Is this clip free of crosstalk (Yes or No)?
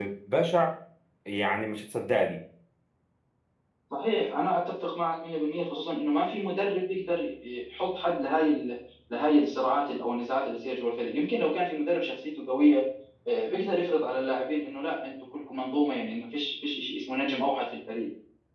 Yes